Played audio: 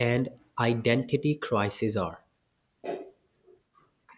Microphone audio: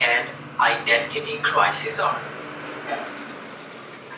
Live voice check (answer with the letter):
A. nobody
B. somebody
A